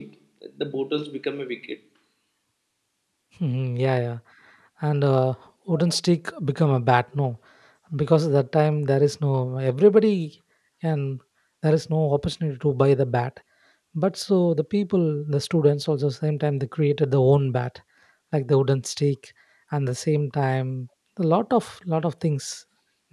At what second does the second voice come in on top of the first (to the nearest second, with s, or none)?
none